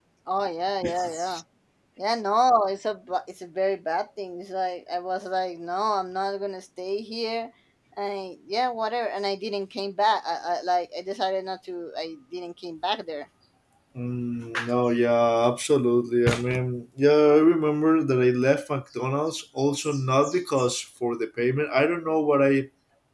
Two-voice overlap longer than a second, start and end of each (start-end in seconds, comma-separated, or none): none